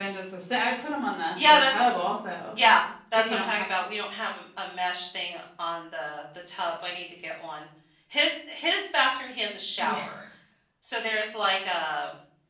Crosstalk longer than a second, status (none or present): none